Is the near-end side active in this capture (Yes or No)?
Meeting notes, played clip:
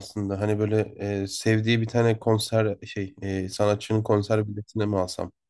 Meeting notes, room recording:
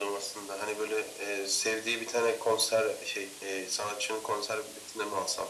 No